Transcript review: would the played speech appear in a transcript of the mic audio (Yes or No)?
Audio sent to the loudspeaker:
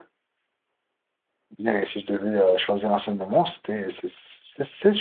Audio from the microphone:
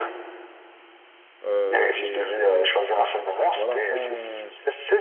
Yes